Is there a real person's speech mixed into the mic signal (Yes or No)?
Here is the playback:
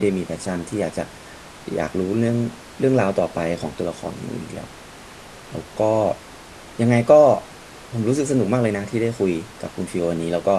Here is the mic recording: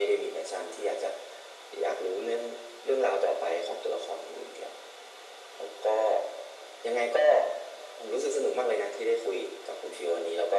No